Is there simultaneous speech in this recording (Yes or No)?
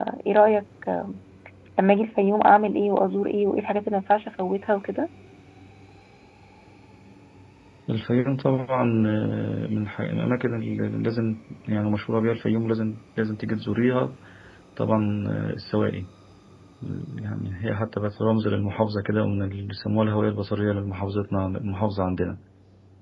No